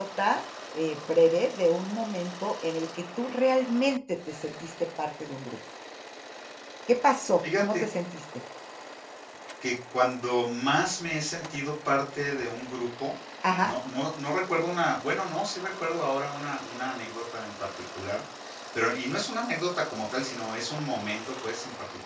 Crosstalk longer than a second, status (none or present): none